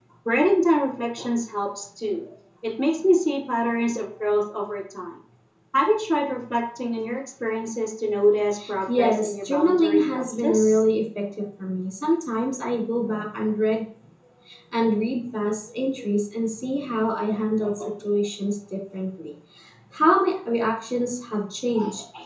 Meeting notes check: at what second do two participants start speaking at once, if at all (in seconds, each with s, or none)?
8.9 s